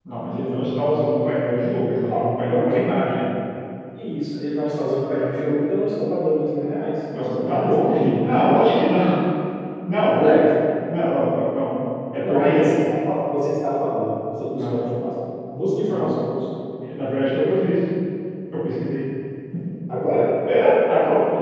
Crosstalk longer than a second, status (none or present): present